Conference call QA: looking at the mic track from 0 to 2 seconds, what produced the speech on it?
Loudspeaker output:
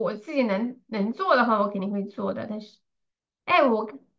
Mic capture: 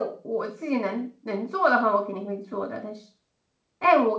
echo only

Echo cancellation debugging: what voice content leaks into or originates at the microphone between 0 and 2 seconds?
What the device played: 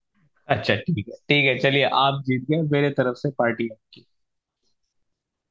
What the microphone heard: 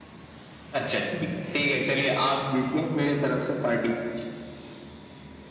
echo only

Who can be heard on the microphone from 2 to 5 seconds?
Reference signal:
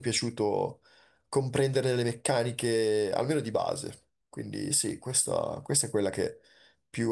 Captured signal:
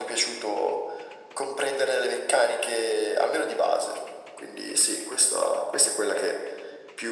echo only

